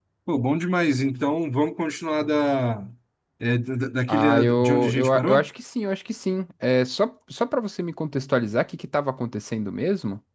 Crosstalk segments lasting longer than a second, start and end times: 4.1-5.5

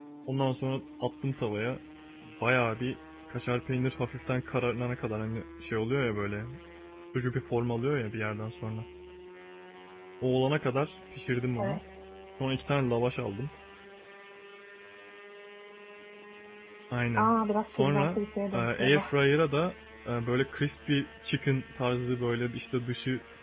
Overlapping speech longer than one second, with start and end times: 17.8-19.0

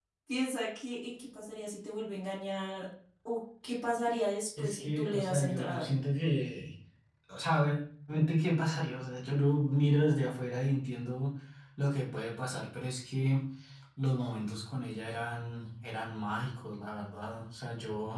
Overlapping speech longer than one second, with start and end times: 4.6-5.9

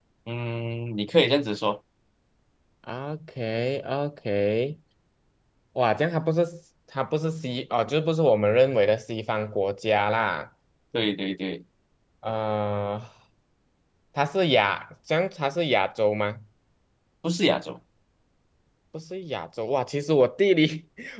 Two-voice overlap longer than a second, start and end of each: none

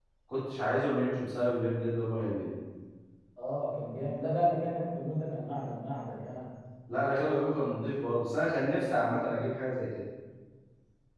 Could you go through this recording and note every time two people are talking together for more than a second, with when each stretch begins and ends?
none

